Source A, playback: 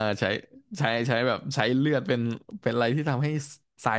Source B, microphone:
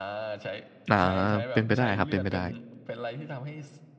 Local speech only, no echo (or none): อ่าเป็นไปได้ครับ เป็นไปได้